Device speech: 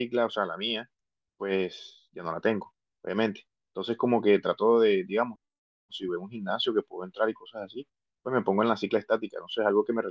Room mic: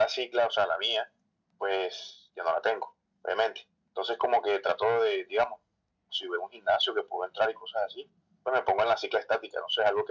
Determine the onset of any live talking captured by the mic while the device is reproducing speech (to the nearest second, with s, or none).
none